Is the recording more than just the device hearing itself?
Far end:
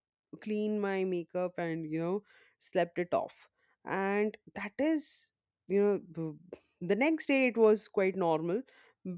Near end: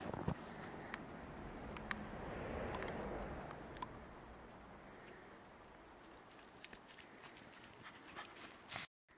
No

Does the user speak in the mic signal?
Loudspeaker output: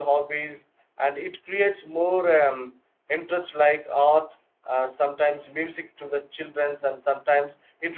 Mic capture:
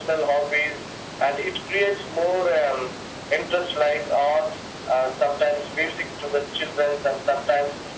No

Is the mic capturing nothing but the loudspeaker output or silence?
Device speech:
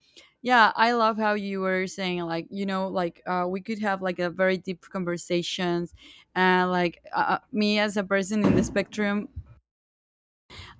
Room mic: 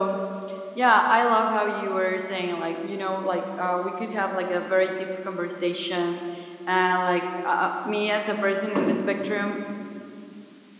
Yes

